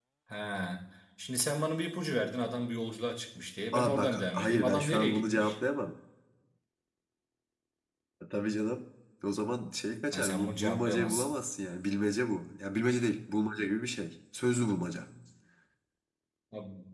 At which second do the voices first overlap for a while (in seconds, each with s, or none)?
3.7 s